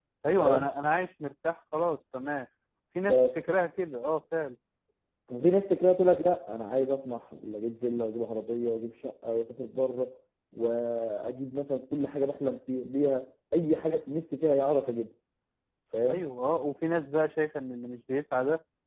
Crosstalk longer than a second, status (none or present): none